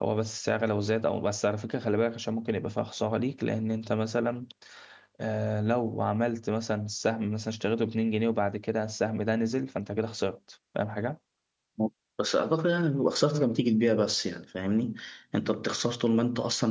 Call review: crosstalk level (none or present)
none